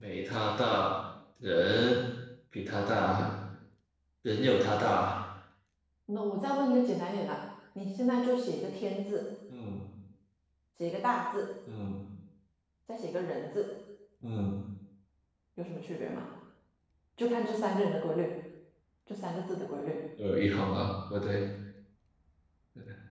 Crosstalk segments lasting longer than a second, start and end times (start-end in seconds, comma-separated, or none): none